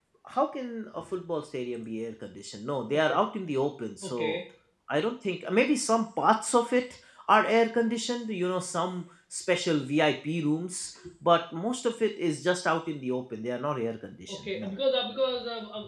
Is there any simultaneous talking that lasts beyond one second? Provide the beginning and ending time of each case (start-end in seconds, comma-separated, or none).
none